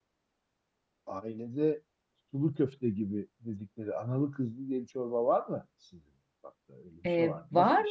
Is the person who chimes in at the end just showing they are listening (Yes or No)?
No